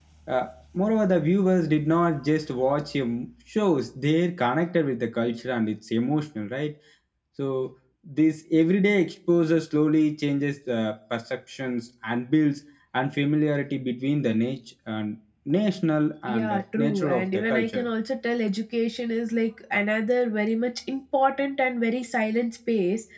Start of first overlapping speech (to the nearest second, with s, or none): 16 s